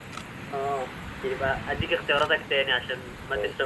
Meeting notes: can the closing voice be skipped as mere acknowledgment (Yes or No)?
Yes